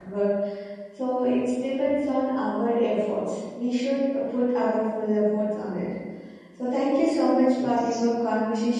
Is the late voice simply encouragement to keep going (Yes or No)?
Yes